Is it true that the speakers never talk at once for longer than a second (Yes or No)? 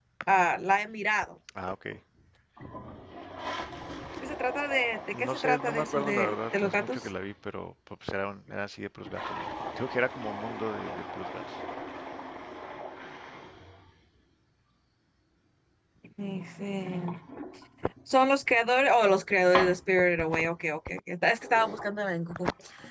No